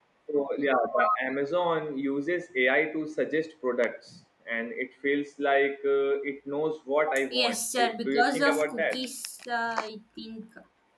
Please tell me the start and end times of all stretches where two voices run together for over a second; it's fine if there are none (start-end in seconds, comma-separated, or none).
7.3-9.0